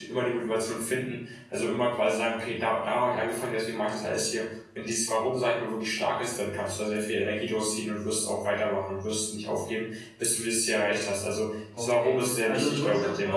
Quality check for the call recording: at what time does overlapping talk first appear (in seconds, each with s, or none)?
11.8 s